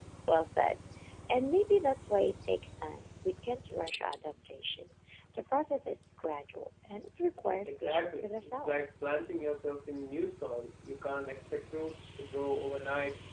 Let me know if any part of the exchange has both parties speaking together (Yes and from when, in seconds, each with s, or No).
Yes, from 7.6 s